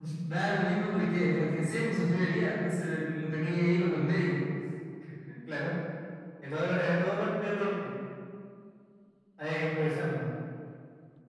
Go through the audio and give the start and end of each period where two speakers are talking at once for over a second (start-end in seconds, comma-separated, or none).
none